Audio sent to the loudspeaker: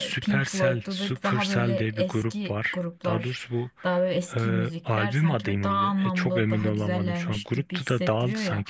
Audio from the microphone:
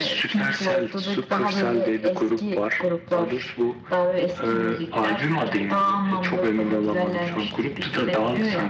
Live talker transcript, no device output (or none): none